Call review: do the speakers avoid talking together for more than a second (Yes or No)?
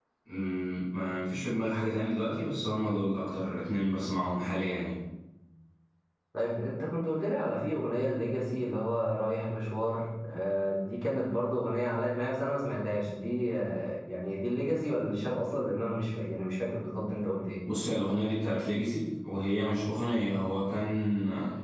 Yes